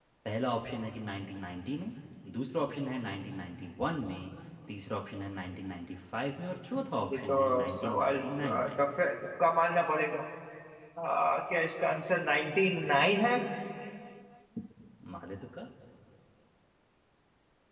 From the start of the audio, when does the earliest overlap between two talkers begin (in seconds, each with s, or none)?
7.1 s